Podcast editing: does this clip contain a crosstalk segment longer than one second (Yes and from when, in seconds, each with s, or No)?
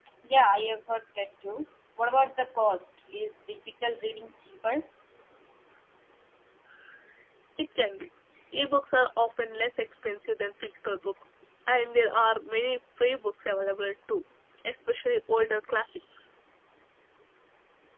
No